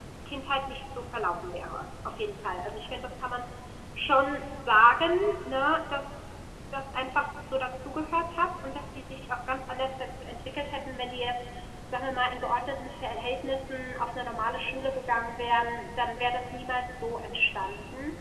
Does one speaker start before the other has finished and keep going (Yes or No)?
No